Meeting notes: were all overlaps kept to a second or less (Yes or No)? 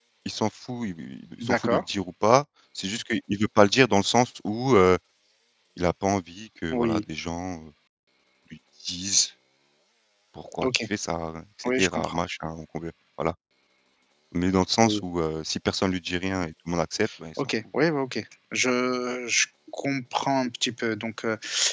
Yes